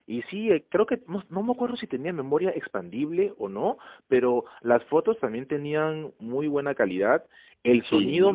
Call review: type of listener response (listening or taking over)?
listening